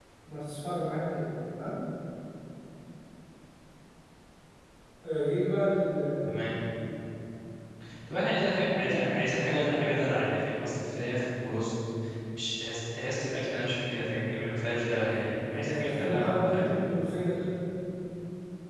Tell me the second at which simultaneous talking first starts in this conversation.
15.5 s

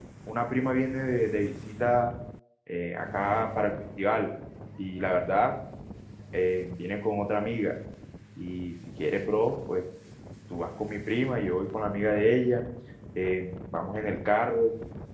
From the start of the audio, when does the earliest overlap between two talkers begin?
none

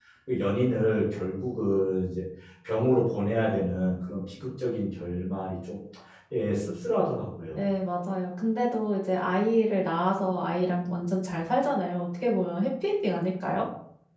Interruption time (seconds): none

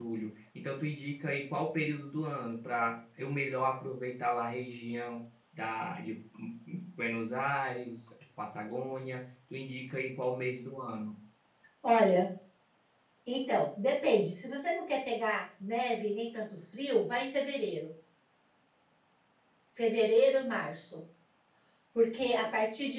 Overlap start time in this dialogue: none

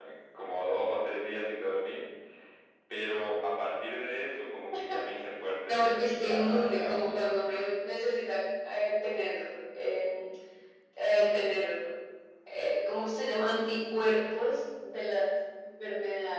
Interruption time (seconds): 5.7 s

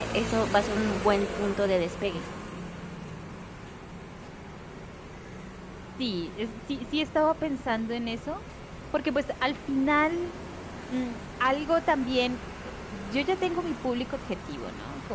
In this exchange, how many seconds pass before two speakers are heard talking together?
none

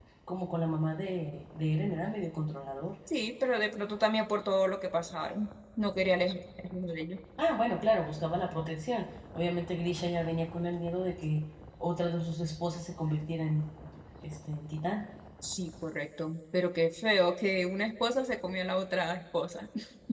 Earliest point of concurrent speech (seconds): none

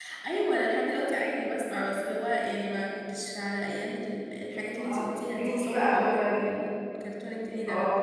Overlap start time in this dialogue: 4.8 s

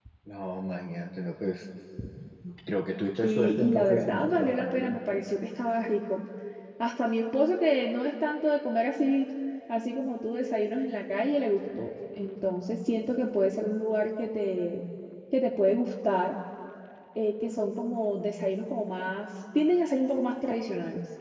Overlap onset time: 3.2 s

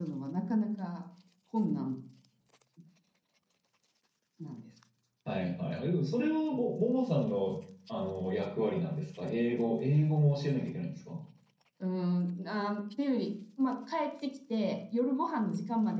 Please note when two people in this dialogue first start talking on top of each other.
none

